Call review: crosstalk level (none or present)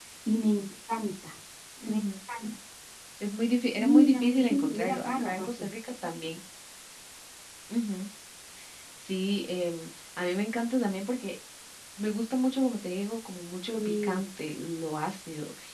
present